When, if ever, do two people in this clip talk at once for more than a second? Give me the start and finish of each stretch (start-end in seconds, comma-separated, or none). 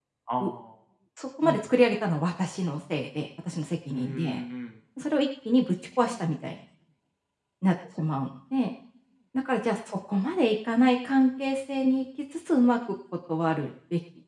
none